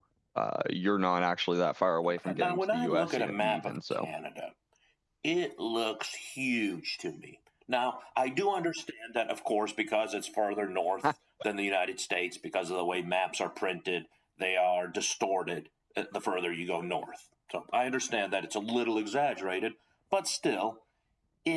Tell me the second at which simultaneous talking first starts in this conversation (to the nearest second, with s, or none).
2 s